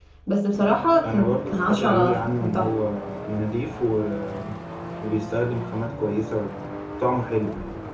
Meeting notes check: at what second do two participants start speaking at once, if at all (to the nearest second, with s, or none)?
1 s